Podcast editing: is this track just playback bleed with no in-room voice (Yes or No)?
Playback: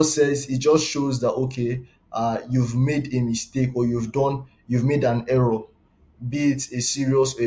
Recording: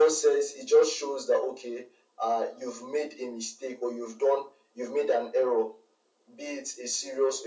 Yes